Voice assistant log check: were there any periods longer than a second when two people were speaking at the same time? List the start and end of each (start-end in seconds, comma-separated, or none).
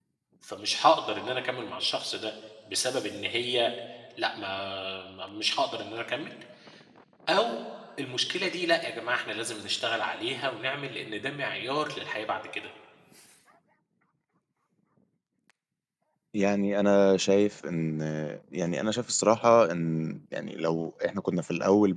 none